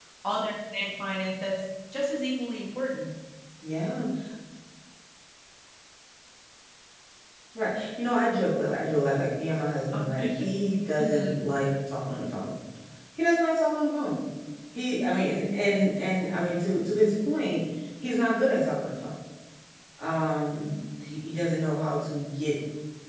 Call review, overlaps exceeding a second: none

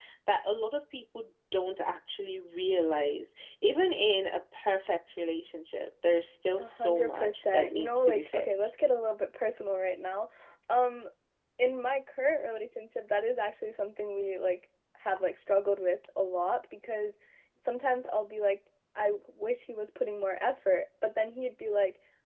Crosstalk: present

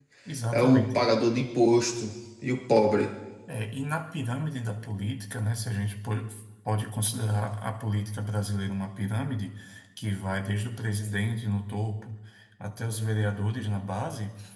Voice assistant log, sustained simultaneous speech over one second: none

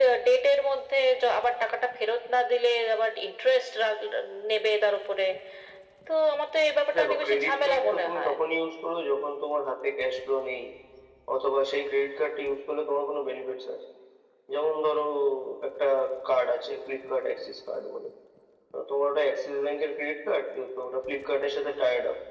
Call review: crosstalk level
present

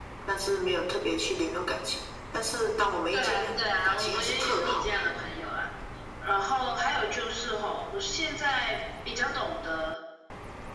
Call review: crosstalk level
present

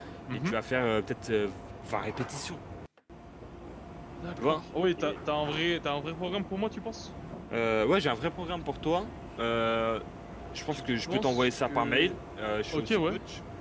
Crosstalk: present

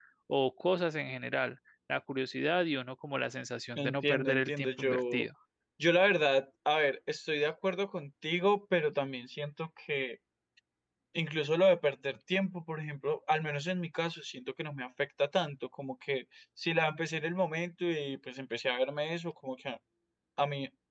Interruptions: present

